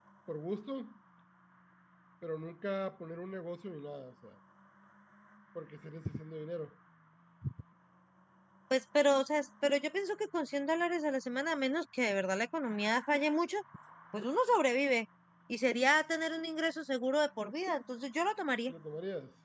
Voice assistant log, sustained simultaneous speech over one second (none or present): none